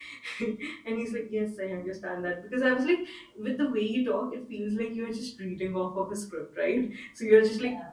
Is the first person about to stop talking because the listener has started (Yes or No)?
No